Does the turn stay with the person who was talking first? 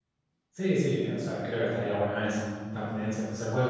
Yes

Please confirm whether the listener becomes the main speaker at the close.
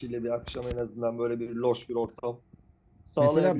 Yes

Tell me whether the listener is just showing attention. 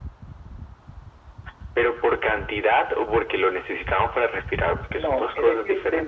No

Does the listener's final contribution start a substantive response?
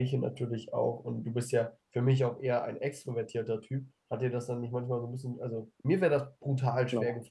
No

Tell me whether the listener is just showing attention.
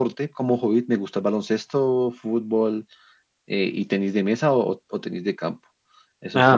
Yes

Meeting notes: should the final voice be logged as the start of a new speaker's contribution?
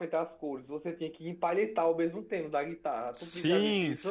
Yes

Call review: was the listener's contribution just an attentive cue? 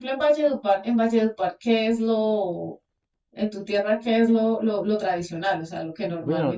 No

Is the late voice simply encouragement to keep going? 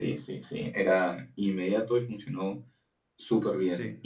No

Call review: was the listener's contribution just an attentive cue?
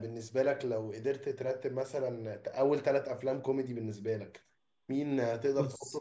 Yes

